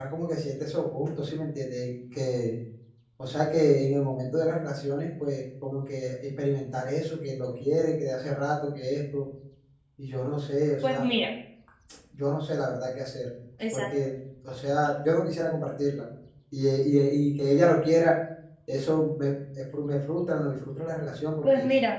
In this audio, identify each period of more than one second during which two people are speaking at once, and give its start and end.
none

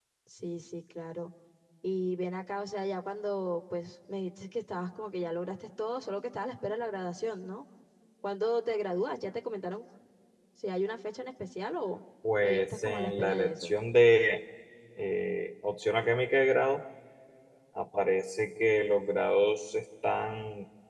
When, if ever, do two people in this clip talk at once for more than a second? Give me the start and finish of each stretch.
12.4-13.7

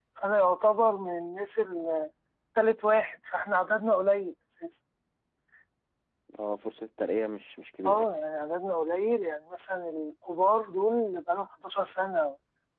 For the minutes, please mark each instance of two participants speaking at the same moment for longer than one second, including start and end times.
none

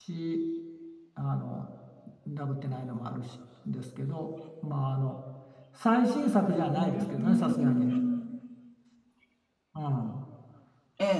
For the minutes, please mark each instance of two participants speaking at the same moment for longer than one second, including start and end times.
6.5-8.0

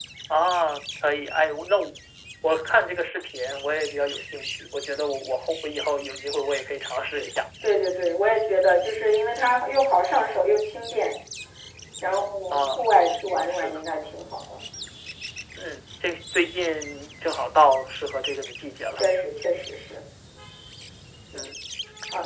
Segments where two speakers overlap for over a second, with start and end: none

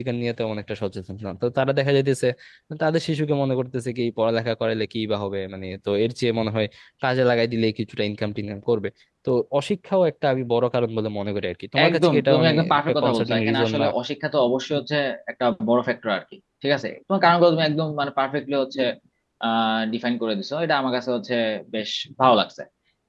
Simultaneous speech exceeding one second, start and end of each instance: 11.9-13.9

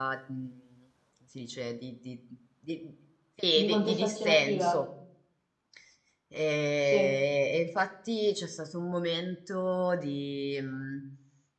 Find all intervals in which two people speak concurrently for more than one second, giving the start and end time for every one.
3.5-4.8

